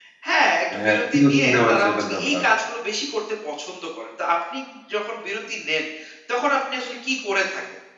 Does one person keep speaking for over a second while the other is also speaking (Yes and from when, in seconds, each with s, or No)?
Yes, from 0.8 s